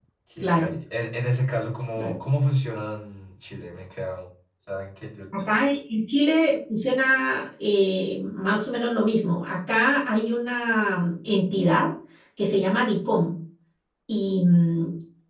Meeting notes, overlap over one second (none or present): none